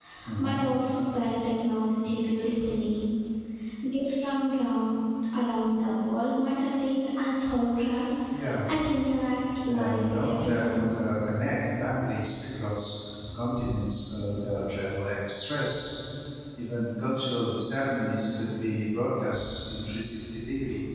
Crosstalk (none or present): present